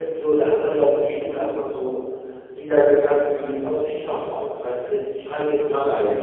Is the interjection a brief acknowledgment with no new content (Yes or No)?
Yes